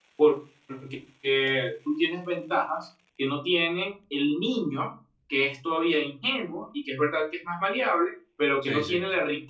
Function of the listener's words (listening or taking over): listening